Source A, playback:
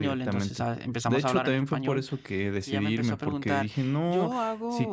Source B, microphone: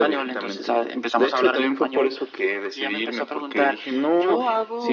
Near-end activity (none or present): none